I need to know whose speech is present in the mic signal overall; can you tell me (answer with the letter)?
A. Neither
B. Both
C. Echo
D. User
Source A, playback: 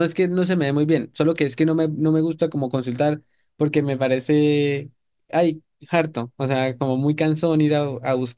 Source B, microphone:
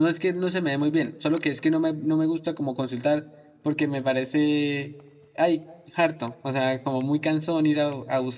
C